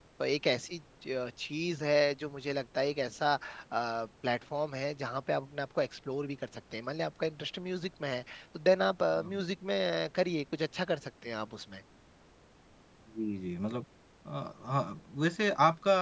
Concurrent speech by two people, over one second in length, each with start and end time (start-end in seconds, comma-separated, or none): none